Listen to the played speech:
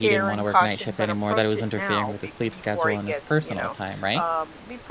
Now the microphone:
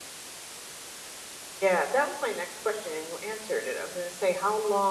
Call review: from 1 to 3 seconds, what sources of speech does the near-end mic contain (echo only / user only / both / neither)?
user only